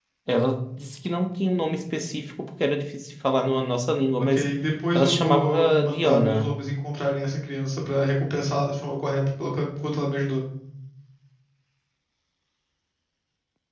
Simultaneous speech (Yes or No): Yes